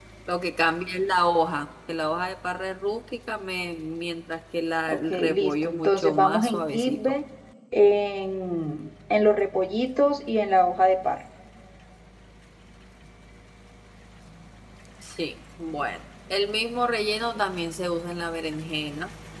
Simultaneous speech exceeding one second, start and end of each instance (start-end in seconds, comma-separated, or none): 4.9-7.1